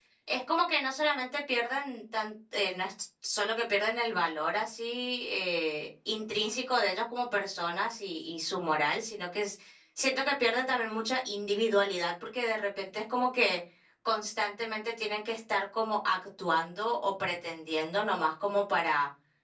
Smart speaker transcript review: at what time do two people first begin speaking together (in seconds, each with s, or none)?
none